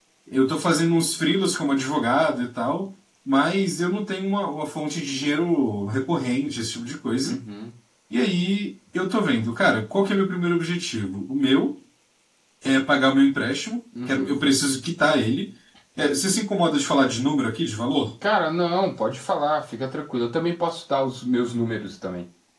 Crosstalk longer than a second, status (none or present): none